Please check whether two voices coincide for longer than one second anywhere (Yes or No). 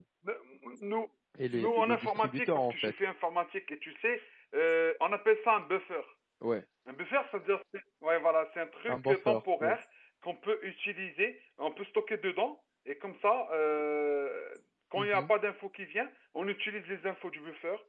Yes